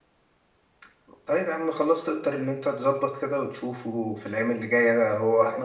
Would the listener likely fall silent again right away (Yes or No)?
Yes